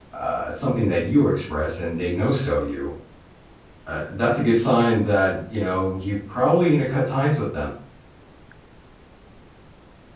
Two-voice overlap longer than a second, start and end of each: none

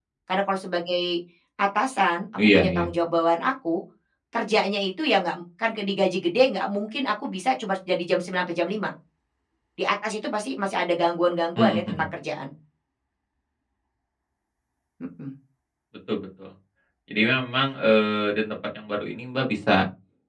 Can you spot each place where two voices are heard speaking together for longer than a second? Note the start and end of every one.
none

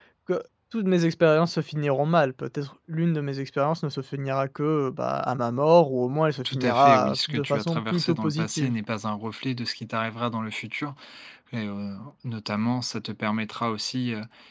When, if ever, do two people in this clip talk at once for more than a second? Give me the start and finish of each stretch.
6.5-8.8

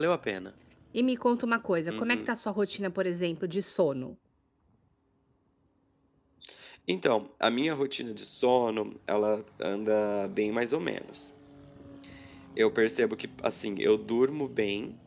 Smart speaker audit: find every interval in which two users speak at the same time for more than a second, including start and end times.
none

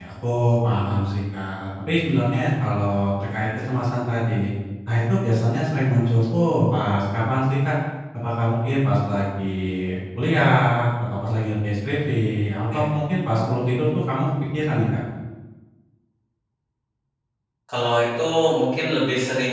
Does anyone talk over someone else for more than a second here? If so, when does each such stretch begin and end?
none

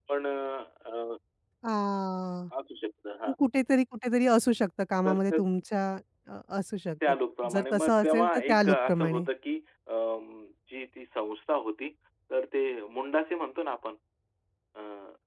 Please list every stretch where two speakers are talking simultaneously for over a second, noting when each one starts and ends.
7.5-9.2

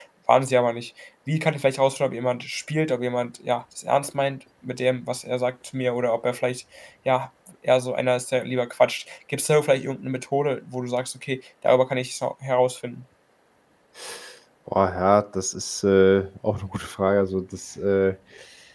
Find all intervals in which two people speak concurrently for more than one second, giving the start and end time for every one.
none

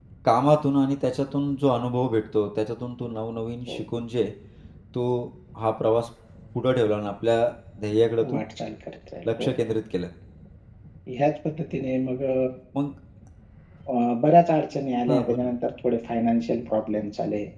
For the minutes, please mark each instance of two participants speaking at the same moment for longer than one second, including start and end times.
none

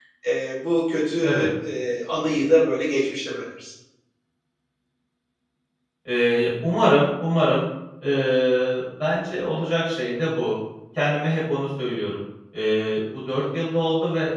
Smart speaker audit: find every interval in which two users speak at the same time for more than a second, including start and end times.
none

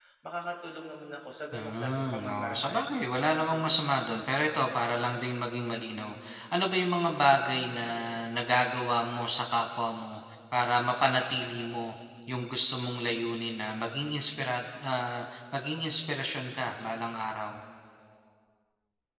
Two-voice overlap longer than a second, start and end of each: 1.5-2.9

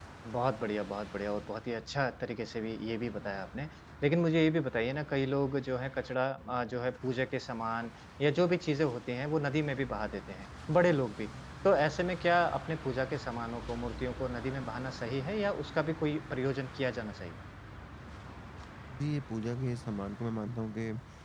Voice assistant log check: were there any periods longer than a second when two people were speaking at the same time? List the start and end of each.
none

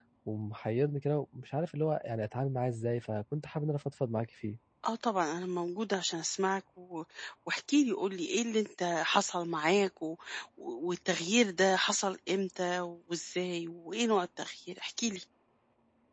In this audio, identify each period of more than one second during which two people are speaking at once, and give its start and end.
none

